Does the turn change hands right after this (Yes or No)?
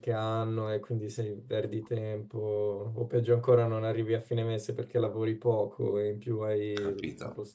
Yes